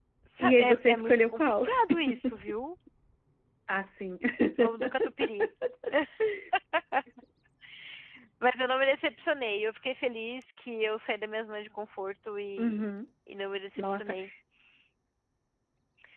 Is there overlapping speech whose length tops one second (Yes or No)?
Yes